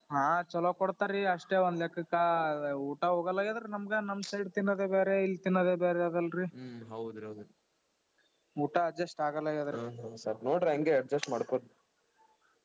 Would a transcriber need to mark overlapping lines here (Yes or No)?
No